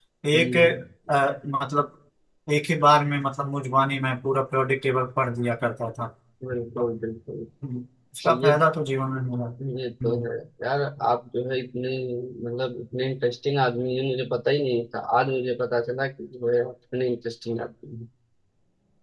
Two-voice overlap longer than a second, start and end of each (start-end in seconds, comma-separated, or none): none